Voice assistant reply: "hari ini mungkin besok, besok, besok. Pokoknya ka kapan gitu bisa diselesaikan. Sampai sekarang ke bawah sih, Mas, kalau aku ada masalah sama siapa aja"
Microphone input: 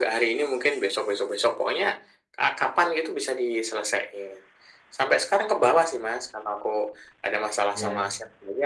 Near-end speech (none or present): present